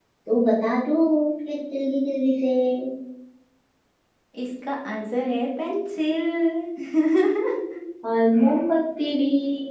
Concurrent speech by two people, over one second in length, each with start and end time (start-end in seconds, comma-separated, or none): none